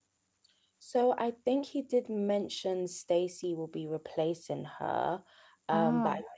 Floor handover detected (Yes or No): No